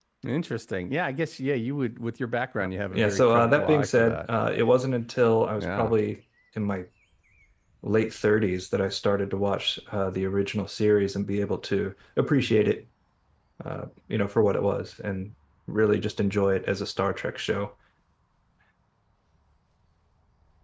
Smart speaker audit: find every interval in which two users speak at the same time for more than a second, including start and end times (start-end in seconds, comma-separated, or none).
2.9-4.2